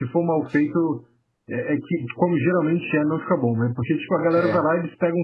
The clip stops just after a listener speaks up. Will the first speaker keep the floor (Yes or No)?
Yes